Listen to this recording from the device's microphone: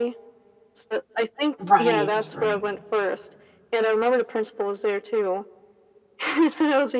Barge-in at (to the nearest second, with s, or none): 2 s